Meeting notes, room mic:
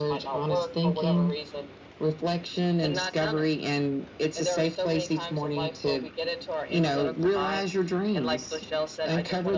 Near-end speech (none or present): none